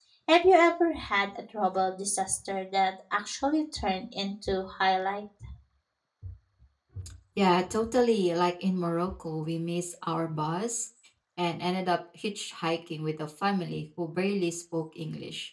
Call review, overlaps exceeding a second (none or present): none